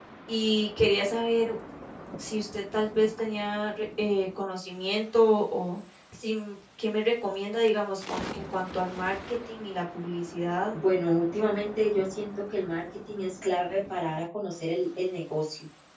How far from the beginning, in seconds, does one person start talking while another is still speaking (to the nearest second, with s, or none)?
none